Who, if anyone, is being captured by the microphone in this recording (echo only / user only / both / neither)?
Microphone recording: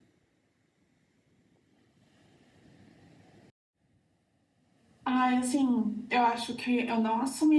user only